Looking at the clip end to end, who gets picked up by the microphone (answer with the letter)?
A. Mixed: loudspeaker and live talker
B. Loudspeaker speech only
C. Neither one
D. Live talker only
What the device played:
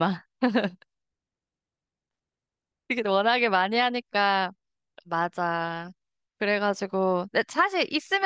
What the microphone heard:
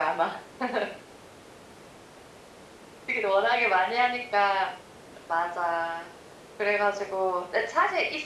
B